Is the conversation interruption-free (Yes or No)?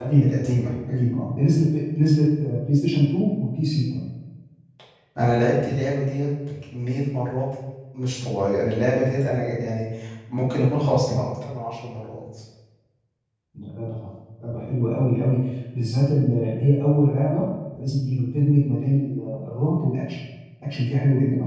Yes